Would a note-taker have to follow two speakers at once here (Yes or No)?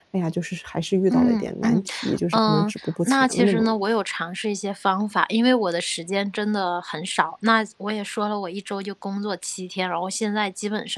Yes